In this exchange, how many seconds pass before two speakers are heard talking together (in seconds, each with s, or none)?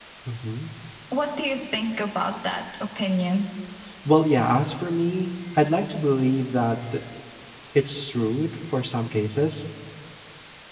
none